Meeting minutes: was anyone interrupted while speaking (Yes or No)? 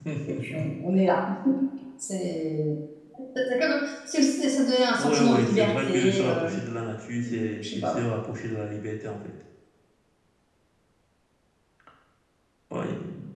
Yes